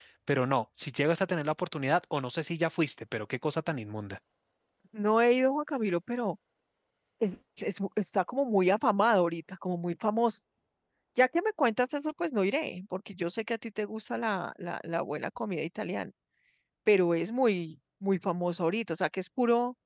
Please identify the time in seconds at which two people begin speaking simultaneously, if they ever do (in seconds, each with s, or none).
none